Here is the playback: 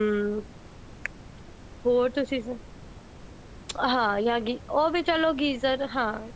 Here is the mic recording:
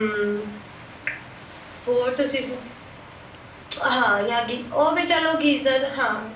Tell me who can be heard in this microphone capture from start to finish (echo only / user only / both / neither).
echo only